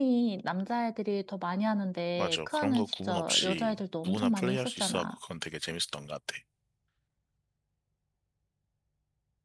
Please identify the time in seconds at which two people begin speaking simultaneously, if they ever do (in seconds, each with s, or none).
2.2 s